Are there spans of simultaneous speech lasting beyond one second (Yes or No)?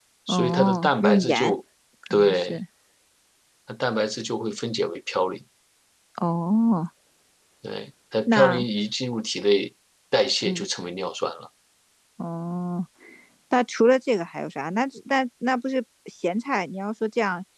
Yes